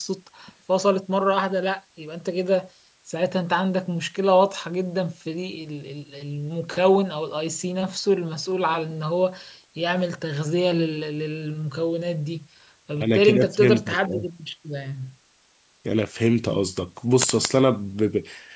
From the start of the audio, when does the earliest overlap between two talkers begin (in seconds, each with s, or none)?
13.0 s